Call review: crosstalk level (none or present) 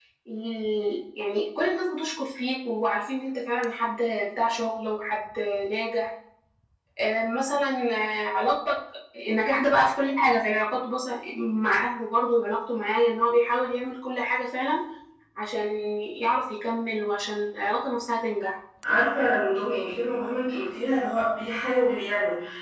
none